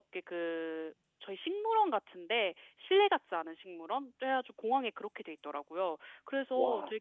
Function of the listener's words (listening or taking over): listening